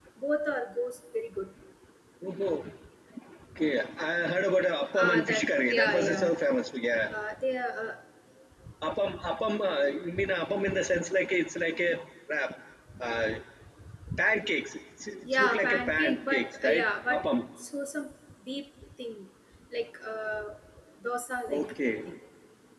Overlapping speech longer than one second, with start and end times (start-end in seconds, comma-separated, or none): 5.0-6.2, 15.3-17.3